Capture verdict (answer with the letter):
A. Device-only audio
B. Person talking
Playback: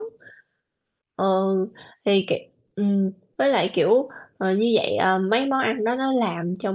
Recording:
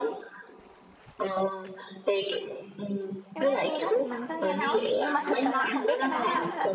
B